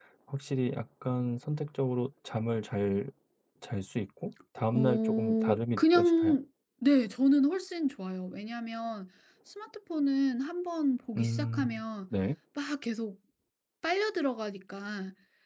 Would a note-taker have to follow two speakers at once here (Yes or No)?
Yes